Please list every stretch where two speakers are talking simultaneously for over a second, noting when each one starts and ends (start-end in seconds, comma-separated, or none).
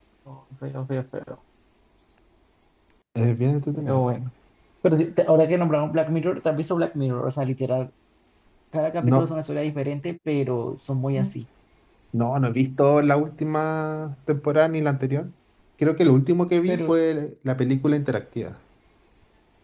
none